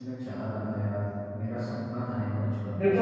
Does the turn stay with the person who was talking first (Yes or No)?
No